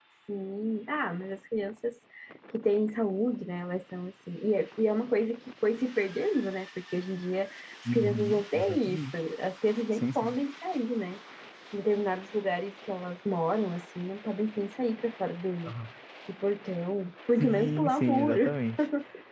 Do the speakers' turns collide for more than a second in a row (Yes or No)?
Yes